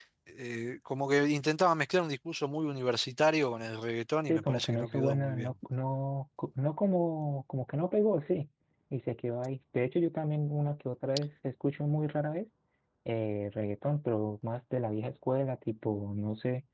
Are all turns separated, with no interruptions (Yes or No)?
No